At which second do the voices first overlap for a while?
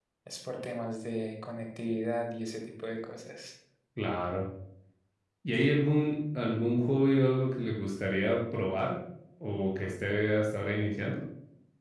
none

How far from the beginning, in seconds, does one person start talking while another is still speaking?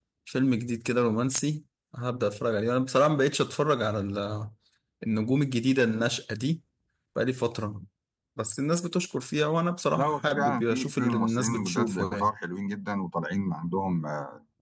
10 s

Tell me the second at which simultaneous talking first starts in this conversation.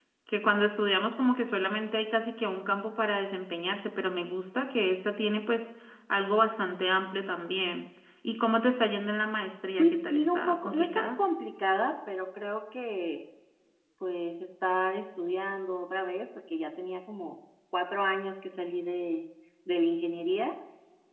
10 s

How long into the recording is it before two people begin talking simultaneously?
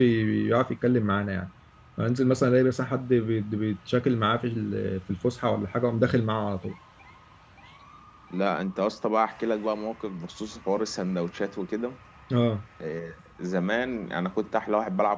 none

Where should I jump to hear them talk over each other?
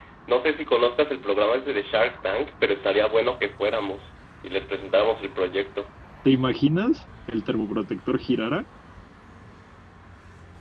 none

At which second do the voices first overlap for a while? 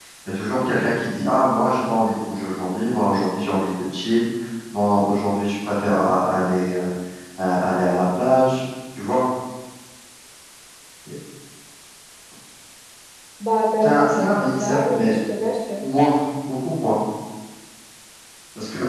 14 s

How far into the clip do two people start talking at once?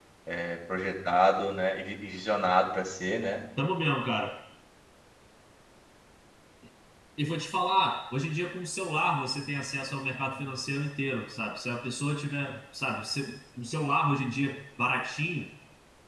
none

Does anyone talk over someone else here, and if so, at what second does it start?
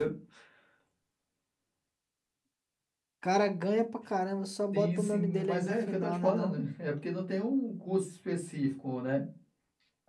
5 s

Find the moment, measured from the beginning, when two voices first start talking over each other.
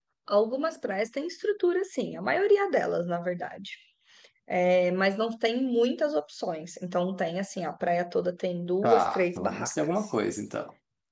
9 s

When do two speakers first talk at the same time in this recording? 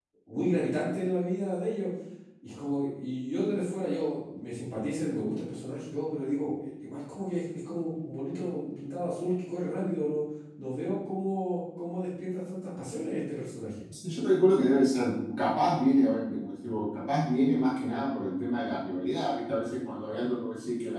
none

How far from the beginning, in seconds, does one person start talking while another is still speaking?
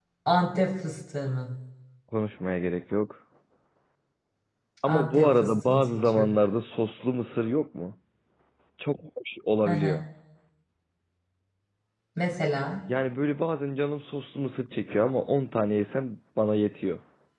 5 s

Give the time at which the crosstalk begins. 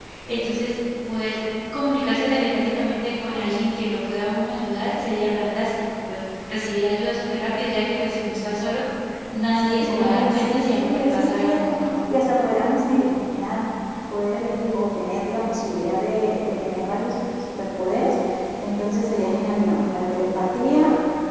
10 s

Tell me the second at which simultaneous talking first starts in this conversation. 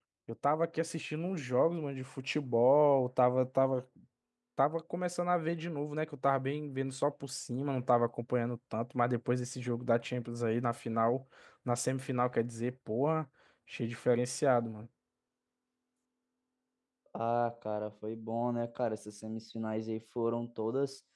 none

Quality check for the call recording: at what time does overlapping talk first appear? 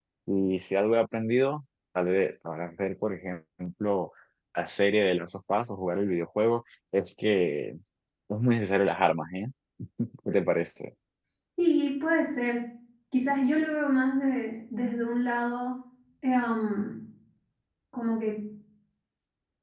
none

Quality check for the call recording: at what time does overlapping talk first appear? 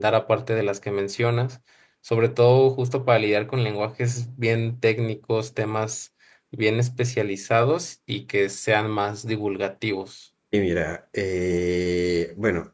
none

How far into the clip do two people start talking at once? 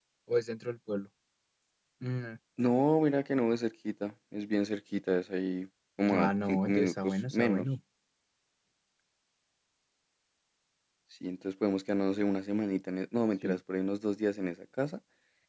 6 s

